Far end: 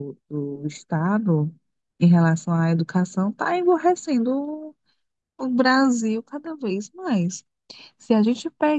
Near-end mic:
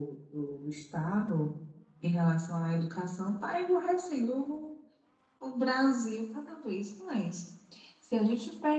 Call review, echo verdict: present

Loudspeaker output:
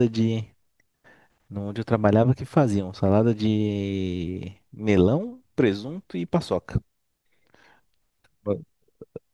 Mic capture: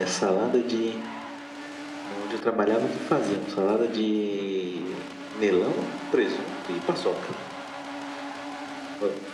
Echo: present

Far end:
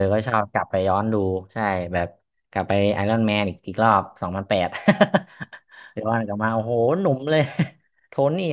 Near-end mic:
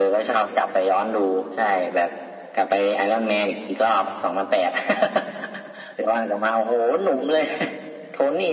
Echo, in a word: present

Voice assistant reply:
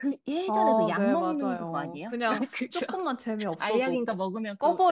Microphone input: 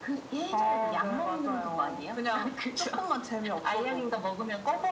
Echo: present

